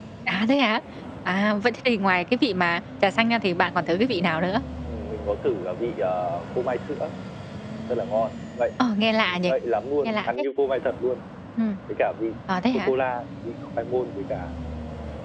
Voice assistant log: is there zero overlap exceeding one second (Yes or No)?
Yes